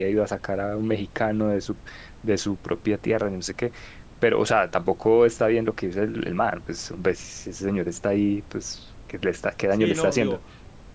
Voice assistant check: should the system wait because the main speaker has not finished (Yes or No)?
No